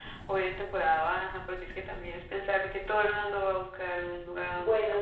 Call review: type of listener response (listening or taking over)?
taking over